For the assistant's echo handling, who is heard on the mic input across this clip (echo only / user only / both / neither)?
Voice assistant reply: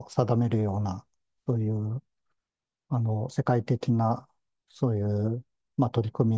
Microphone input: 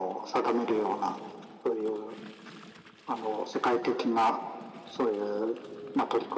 echo only